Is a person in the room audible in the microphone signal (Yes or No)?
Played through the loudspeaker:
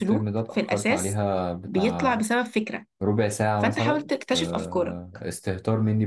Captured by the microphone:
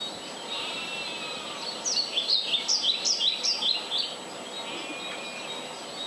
No